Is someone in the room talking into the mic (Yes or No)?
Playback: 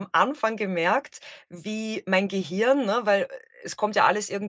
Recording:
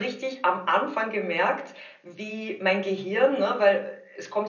No